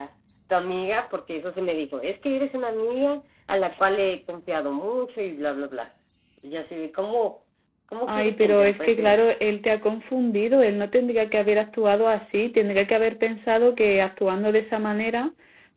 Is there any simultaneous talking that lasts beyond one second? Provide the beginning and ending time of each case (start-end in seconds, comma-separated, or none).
8.0-9.2